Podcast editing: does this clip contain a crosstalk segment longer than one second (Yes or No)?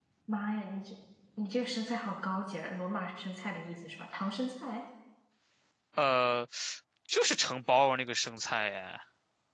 No